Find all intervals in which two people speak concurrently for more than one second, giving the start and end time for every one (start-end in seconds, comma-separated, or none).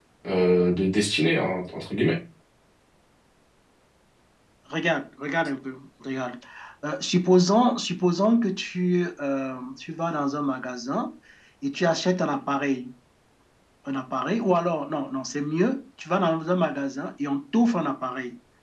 none